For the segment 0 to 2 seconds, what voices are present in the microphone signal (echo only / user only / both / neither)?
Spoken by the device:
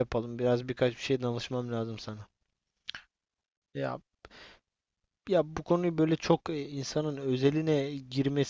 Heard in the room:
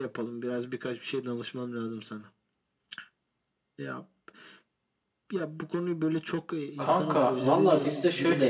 echo only